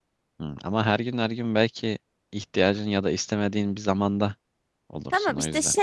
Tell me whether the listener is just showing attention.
No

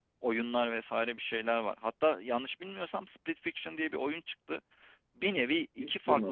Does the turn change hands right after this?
No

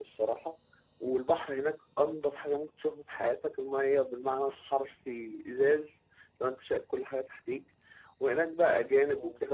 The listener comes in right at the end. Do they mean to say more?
No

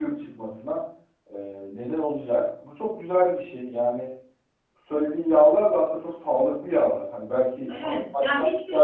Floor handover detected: Yes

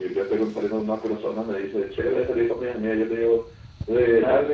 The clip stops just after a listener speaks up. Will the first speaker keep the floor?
Yes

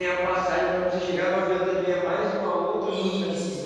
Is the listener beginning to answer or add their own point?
Yes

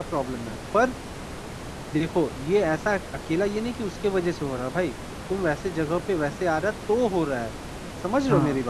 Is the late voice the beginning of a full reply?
Yes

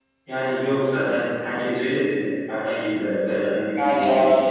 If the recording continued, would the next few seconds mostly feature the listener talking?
Yes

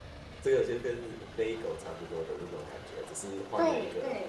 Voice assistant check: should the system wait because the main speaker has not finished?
No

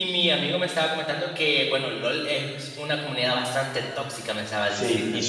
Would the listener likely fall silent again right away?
No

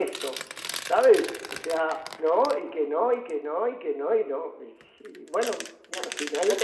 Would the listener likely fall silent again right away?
No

